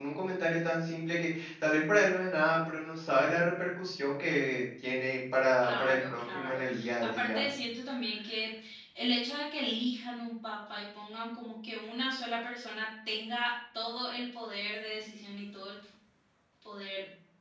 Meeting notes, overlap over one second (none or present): present